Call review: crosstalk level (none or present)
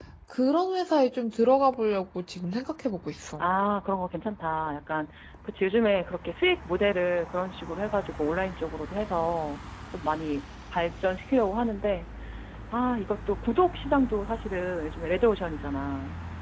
none